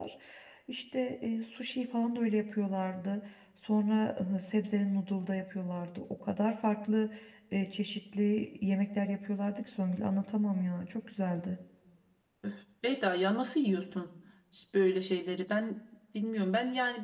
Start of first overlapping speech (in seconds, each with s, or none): none